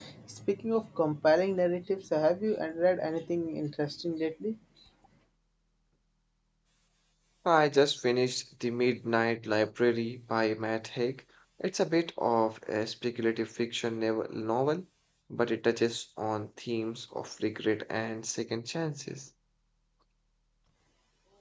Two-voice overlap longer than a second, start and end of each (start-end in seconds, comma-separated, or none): none